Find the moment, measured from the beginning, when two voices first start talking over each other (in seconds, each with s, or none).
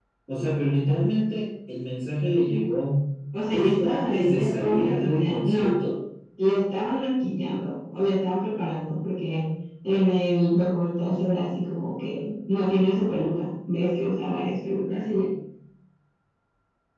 3.5 s